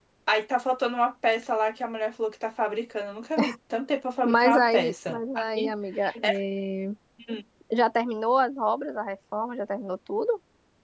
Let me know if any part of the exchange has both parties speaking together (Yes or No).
Yes